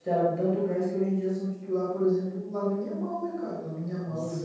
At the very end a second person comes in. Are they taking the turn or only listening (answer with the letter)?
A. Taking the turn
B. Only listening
A